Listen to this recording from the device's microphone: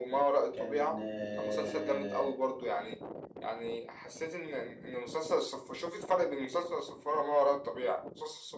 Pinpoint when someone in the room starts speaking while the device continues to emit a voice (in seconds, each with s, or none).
0.5 s